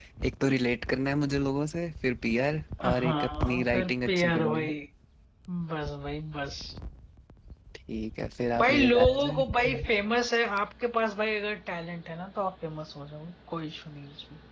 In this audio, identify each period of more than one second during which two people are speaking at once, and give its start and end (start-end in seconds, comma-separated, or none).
3.0-4.7, 8.6-9.8